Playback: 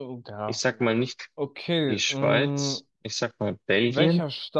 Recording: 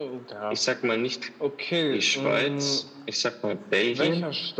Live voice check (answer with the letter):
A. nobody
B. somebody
A